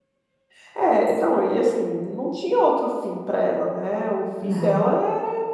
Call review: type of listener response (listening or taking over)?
listening